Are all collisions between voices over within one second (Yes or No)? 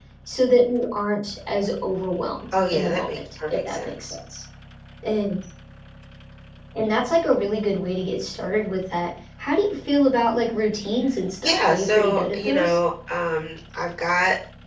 No